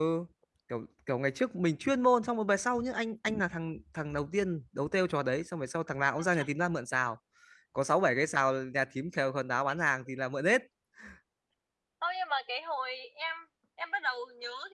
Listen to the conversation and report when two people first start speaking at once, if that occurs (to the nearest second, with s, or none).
none